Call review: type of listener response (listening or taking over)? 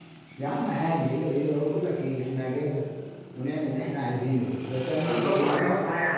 taking over